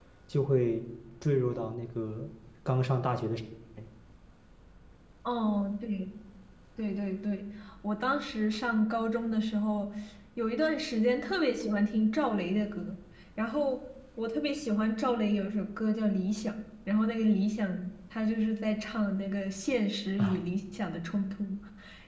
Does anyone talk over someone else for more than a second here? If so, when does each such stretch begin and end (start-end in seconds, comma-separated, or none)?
none